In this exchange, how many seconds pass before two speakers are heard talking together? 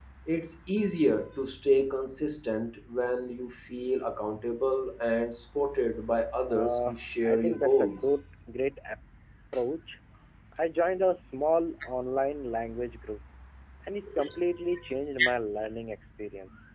6 s

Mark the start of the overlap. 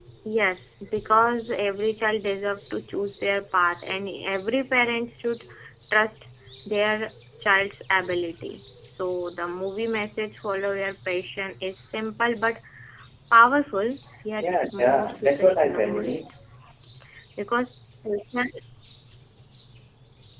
14 s

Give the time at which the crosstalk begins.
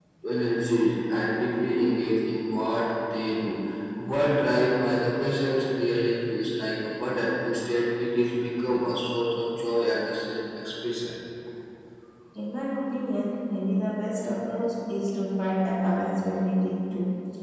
none

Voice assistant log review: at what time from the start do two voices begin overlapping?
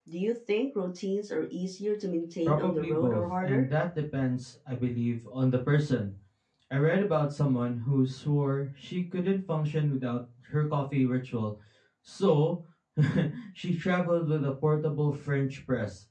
2 s

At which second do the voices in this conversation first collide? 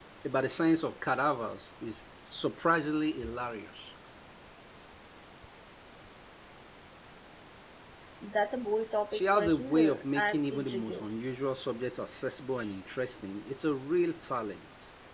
9 s

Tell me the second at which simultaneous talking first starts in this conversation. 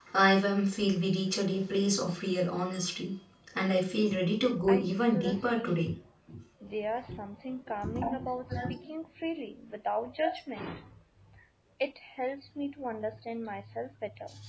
5 s

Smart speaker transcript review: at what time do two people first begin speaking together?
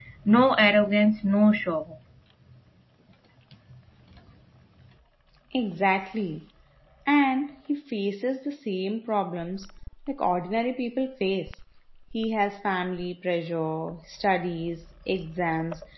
none

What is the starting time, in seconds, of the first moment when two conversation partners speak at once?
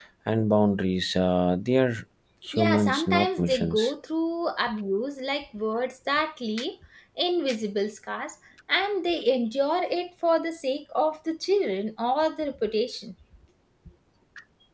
3 s

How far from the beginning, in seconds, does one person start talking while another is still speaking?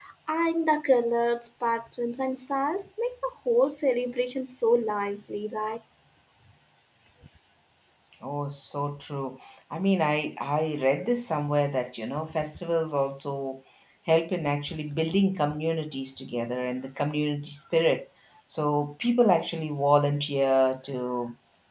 none

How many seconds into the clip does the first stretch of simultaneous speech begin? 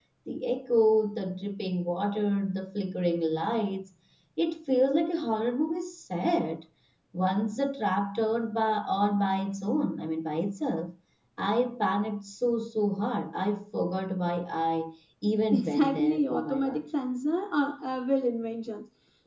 16 s

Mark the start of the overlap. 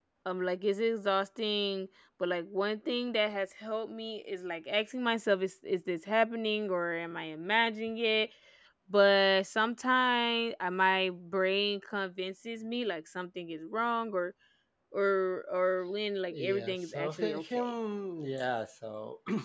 16 s

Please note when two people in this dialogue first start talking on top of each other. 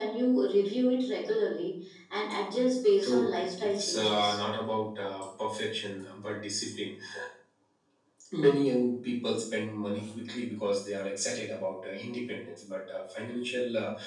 3 s

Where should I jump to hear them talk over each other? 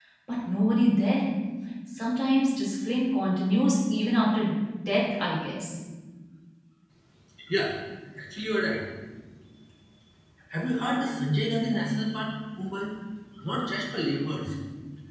none

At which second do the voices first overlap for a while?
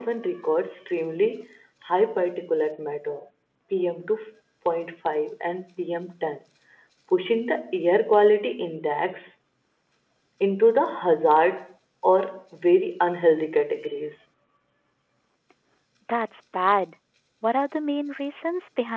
none

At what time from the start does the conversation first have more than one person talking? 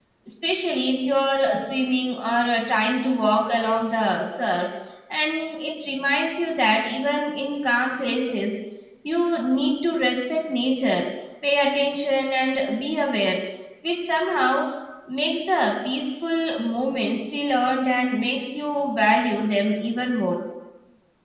none

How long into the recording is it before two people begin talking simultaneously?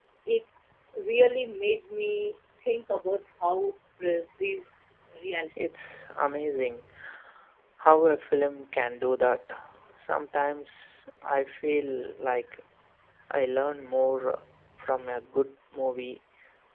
none

